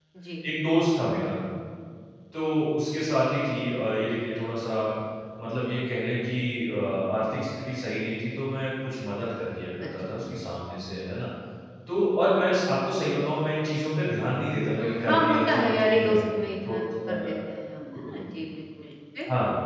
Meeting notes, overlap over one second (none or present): present